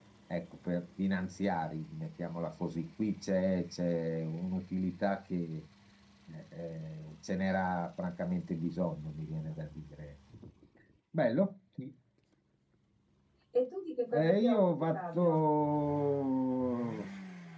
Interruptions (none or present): present